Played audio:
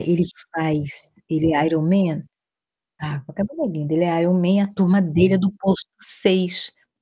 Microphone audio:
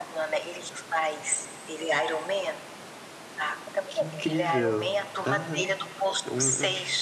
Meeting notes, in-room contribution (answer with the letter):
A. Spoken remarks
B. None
A